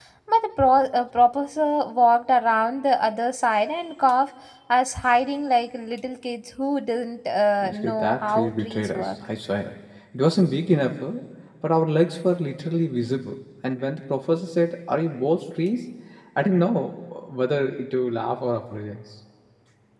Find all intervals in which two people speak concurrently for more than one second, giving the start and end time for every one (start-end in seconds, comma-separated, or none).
7.6-9.1